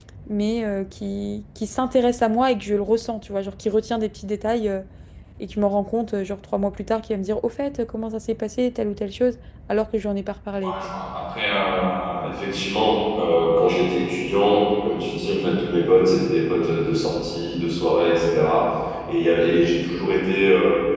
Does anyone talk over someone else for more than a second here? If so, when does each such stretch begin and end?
none

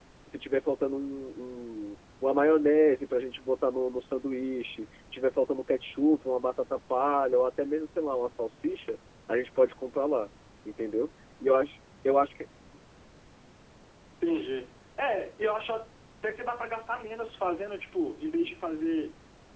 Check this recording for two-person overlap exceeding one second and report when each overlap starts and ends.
none

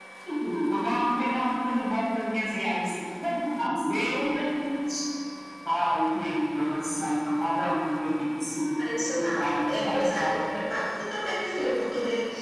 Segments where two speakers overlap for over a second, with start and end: 8.8-10.4

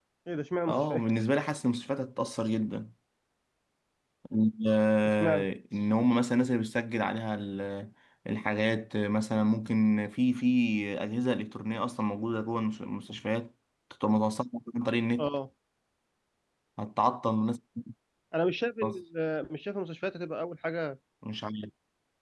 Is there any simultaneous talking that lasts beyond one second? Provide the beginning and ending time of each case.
none

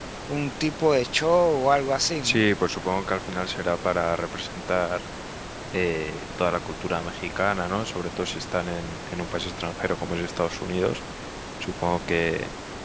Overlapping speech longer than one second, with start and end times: none

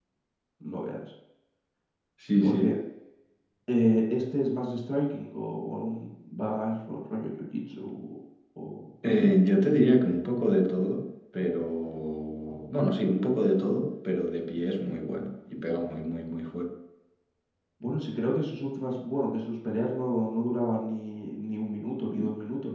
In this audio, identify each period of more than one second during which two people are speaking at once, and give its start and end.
none

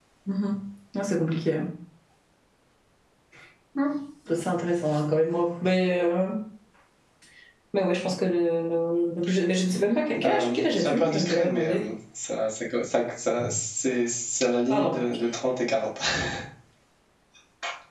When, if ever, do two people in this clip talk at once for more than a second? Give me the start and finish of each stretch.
10.2-11.9

